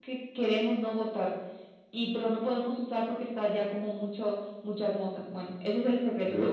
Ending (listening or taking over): taking over